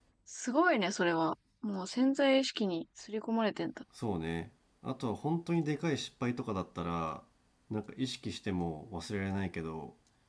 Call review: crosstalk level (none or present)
none